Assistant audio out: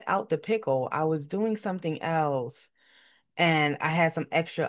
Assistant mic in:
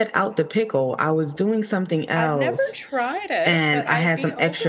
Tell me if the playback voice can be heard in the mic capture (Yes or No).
Yes